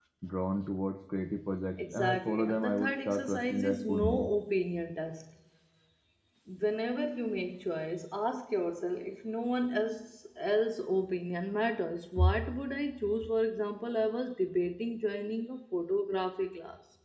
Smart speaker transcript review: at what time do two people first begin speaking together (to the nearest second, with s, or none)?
2 s